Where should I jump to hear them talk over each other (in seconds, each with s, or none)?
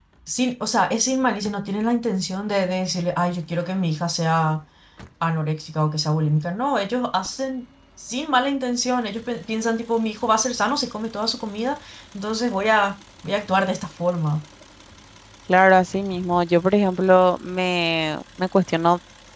none